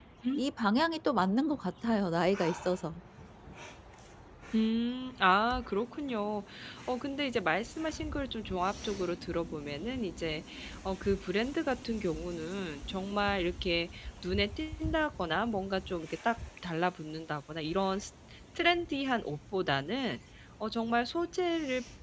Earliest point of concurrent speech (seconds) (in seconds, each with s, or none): none